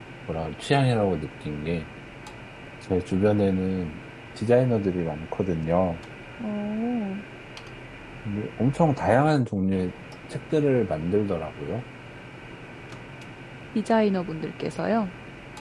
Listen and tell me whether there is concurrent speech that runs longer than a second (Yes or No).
No